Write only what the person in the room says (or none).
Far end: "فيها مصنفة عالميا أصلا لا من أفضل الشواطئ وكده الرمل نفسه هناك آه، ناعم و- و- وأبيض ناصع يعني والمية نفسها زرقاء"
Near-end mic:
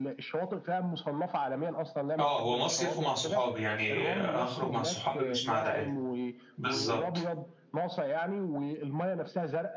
اه هو مصيف ومع صحابي يعني هخرج مع صحابي مش مع العائله بالظبط